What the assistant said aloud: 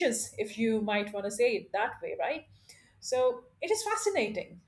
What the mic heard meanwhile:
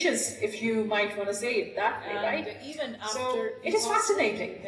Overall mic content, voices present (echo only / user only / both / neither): both